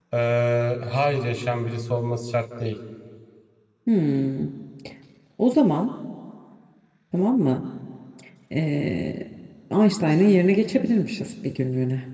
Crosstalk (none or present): none